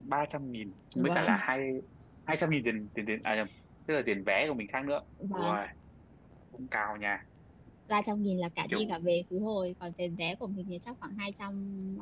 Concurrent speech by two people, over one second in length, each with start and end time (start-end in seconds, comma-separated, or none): none